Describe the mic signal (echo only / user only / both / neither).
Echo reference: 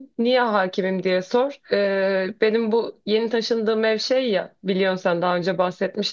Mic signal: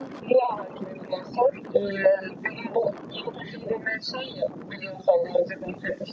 echo only